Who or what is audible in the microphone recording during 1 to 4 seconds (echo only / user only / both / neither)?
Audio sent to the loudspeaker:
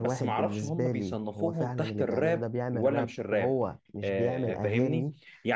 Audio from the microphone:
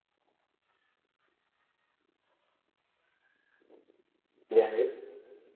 neither